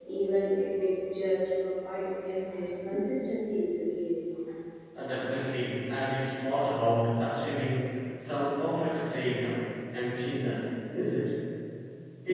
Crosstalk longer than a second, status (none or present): none